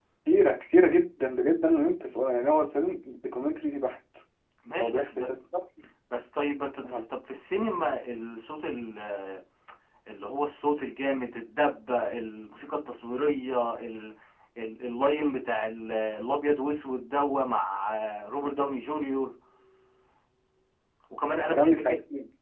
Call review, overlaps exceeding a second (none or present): none